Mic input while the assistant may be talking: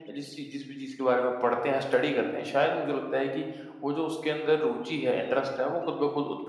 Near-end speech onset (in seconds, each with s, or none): none